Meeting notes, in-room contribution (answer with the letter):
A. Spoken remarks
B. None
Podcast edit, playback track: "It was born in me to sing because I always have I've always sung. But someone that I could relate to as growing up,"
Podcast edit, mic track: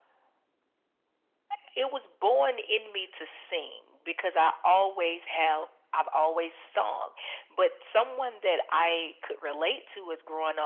B